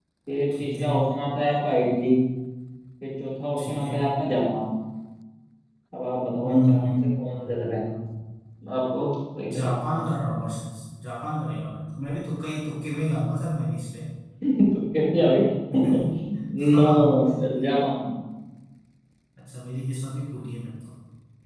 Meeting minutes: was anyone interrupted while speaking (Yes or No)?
Yes